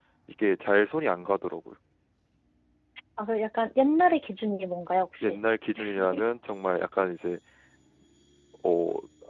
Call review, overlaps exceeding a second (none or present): none